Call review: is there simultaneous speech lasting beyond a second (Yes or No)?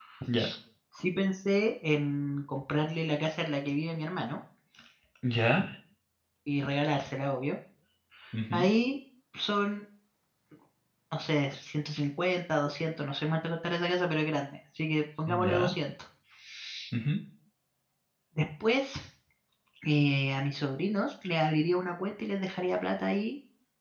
No